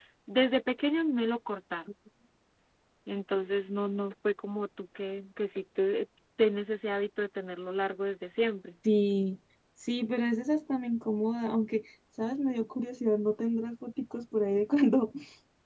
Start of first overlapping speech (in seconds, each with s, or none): none